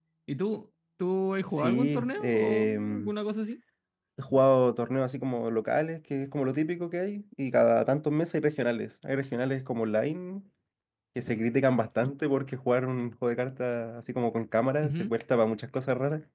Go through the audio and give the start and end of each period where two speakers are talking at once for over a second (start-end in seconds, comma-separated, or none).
1.6-3.1